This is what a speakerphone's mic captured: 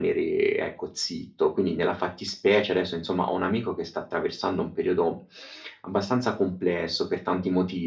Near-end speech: none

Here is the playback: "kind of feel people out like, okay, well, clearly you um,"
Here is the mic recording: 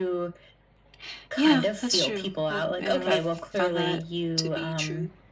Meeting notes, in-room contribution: present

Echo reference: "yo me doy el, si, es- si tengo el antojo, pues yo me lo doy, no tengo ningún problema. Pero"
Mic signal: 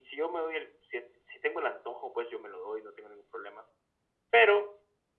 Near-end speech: none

